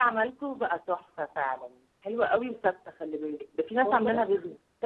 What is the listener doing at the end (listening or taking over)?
taking over